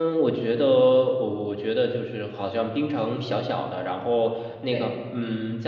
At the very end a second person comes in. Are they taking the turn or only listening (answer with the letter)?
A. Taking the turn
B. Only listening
B